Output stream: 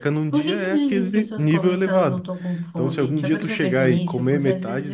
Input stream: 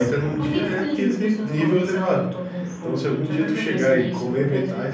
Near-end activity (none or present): none